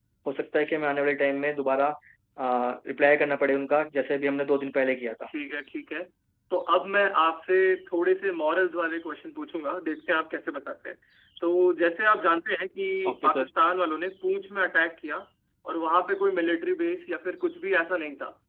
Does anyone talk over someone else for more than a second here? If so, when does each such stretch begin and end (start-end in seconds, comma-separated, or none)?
none